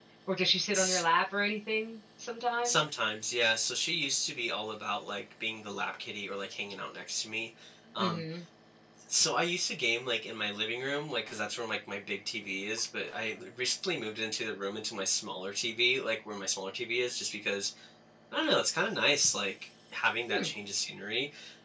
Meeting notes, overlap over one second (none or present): none